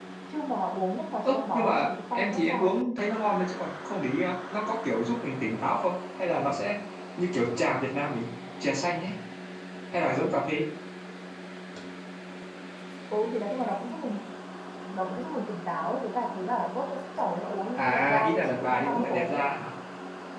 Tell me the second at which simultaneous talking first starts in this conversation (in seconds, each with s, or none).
1.2 s